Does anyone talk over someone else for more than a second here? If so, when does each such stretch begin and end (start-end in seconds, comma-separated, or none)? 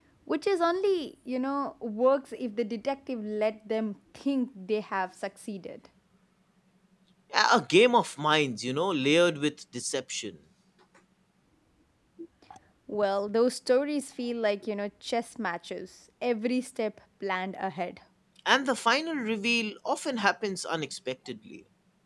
none